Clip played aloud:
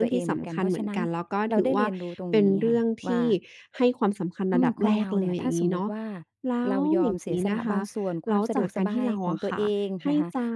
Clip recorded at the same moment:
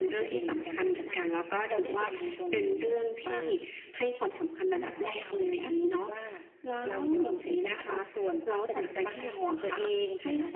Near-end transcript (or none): none